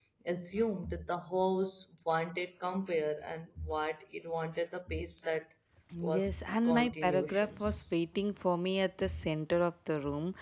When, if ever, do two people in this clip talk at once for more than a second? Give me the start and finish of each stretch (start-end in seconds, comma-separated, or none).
6.0-7.9